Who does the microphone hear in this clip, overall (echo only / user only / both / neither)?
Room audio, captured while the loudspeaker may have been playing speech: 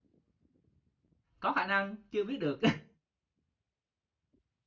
user only